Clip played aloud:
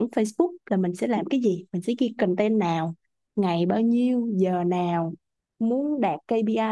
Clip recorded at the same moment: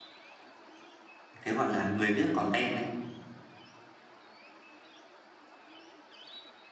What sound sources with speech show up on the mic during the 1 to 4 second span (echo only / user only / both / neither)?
user only